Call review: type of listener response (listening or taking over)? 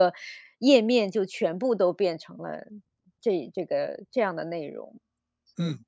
taking over